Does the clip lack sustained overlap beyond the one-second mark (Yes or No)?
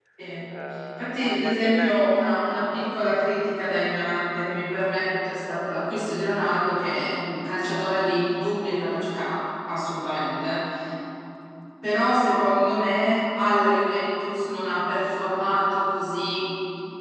No